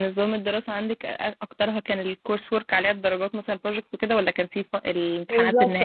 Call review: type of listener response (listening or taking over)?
taking over